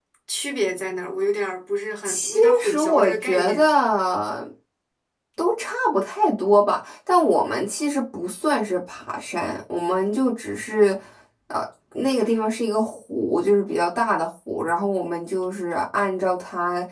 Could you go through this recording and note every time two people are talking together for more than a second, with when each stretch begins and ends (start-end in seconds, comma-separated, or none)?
2.0-3.7